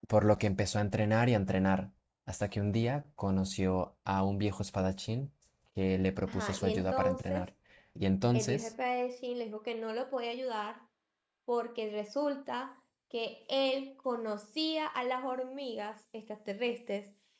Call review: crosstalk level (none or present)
present